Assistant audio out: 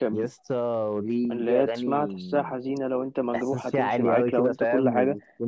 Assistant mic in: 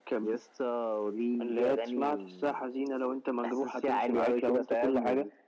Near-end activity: none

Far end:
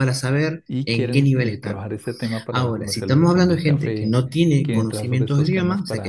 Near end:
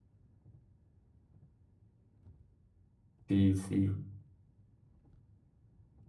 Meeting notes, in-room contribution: present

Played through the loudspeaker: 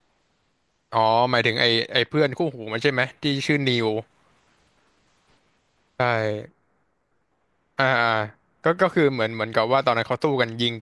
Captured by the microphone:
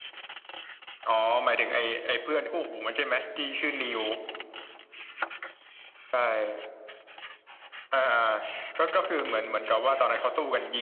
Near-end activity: none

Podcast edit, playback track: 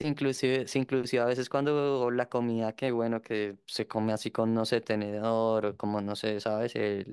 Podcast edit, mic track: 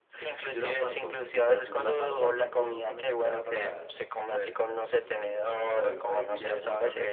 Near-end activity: present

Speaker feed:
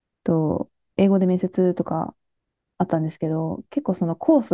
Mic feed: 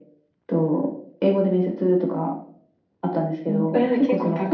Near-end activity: present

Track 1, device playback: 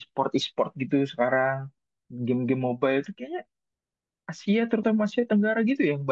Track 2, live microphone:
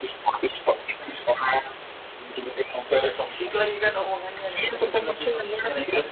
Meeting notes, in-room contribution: present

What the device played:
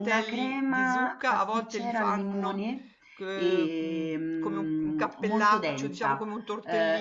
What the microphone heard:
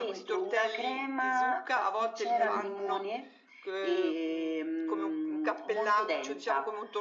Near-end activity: present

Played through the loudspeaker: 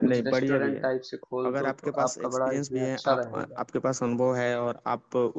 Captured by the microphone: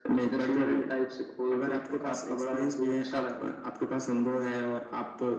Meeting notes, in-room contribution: none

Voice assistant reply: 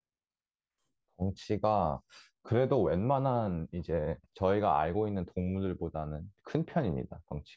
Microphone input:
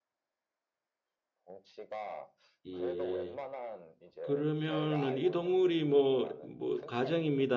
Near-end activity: present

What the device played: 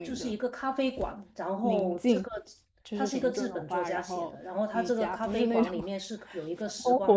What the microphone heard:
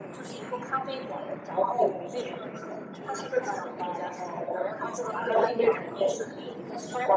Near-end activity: none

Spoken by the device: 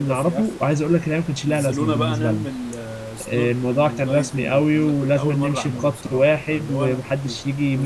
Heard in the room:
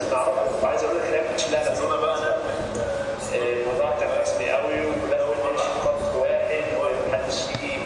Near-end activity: none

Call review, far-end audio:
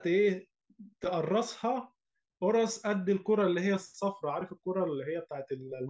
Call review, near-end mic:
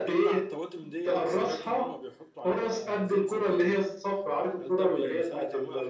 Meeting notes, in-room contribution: present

